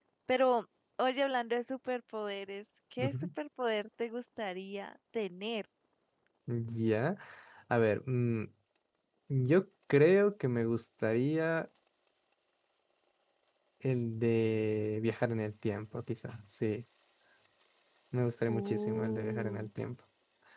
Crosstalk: present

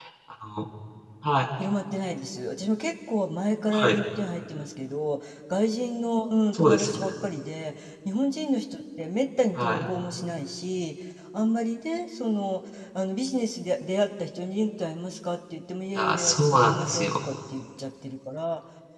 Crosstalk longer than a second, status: present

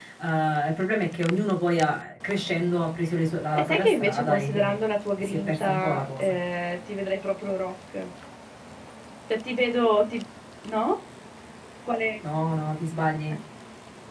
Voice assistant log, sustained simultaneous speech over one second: present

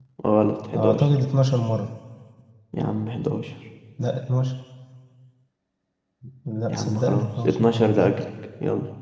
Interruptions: present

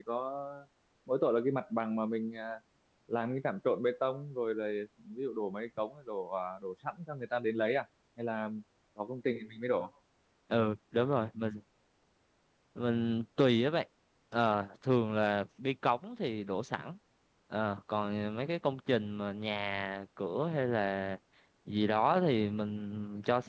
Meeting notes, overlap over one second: none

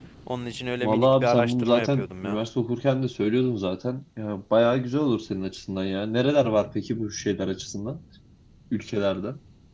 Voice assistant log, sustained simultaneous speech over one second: present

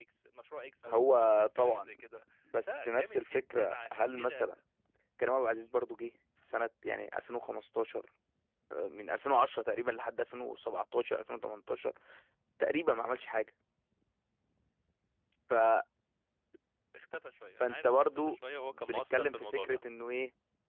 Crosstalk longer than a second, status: present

